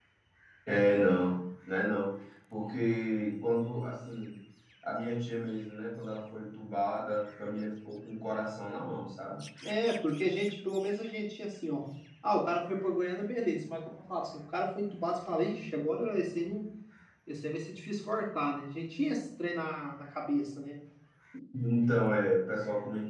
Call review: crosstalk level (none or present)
none